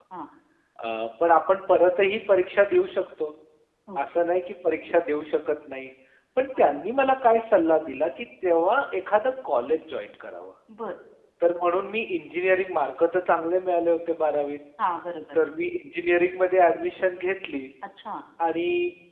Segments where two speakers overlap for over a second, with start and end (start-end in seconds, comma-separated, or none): none